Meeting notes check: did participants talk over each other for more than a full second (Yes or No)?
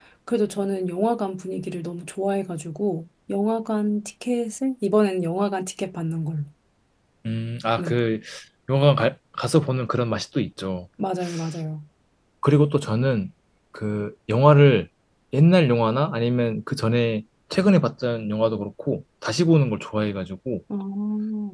No